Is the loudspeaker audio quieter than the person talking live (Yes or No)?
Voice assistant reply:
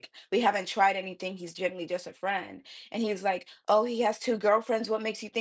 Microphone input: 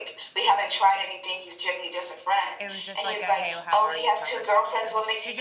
No